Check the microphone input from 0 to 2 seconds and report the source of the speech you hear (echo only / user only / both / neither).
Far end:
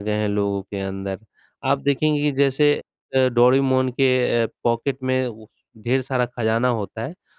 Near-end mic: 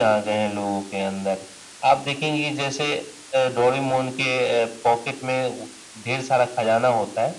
echo only